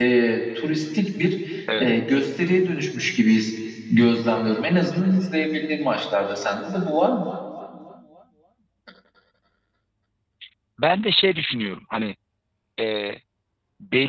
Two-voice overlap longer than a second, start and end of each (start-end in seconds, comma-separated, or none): none